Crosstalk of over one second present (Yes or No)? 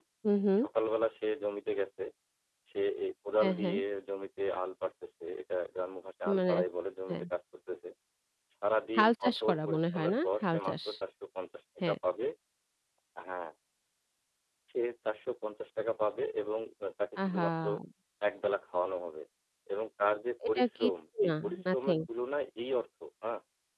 Yes